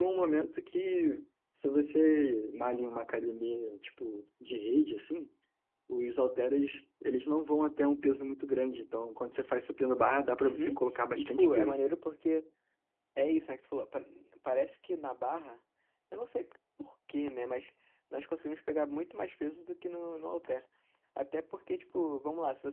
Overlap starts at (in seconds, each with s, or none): 10.4 s